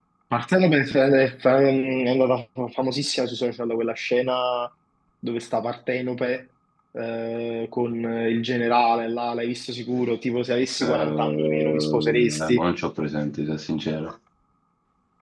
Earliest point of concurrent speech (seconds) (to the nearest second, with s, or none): 11 s